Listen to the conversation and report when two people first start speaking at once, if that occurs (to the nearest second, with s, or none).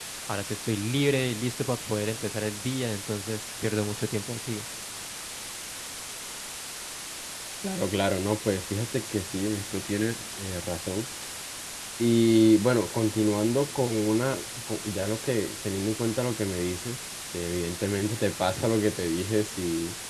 none